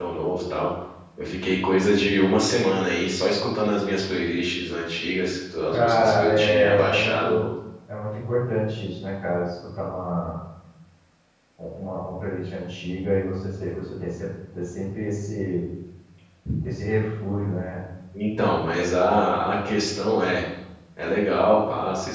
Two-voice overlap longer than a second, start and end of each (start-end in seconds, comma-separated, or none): 5.7-7.4